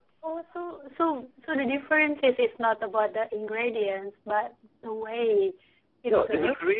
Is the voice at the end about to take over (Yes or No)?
Yes